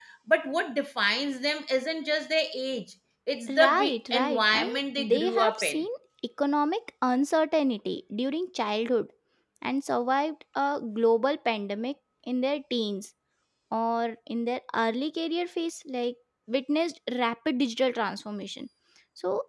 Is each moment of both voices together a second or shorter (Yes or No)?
No